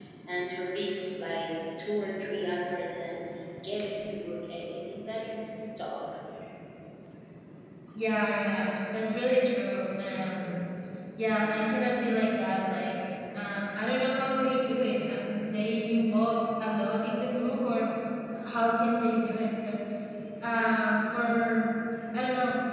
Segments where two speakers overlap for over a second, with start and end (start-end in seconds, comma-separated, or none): none